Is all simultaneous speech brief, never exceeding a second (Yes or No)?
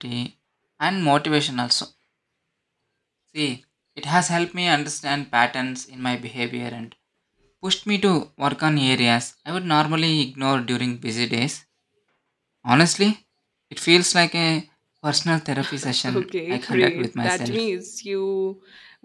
No